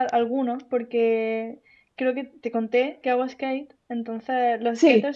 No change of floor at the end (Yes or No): Yes